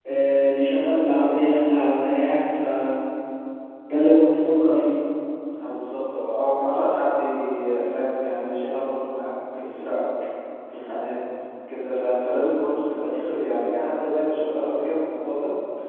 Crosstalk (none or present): none